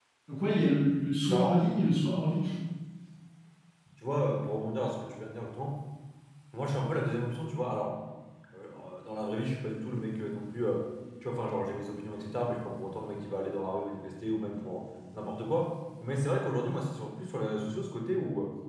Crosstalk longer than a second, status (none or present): none